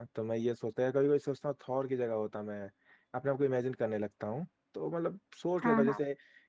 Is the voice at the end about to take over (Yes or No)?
No